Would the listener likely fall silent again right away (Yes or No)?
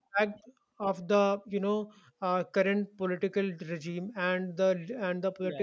Yes